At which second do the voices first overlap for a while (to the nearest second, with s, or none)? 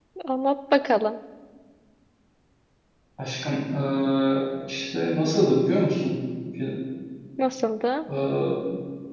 none